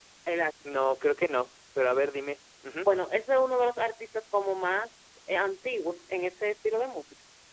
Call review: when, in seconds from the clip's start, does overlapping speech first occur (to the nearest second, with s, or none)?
none